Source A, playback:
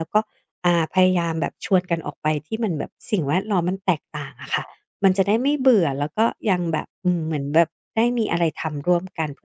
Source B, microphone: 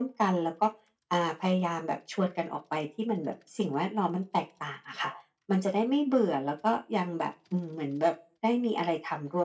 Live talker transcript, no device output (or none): none